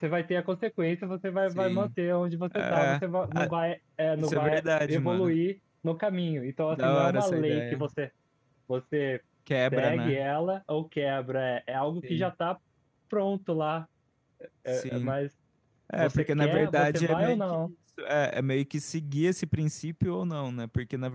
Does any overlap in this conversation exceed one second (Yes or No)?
Yes